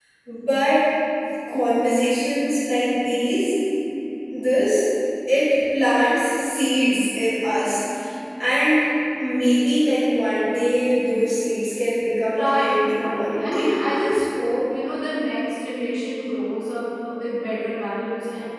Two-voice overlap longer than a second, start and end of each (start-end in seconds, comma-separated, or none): 12.4-13.8